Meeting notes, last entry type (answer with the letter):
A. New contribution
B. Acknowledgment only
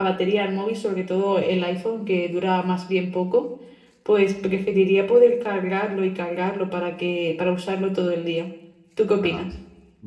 A